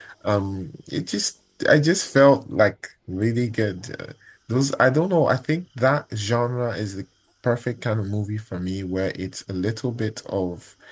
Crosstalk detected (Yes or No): No